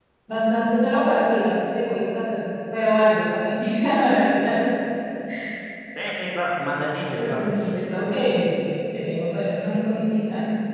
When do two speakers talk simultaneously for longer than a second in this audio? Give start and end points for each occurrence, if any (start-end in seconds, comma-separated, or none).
none